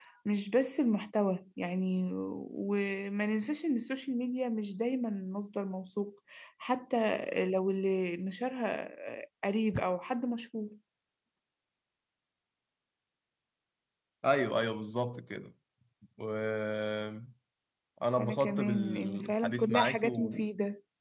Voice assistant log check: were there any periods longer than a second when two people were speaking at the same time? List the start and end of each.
18.2-20.5

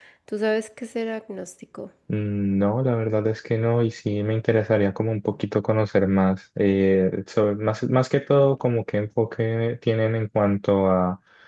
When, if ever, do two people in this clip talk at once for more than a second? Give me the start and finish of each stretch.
none

